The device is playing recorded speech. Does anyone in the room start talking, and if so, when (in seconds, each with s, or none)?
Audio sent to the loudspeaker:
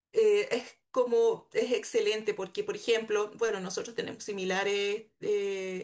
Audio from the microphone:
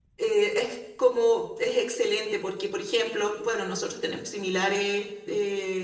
none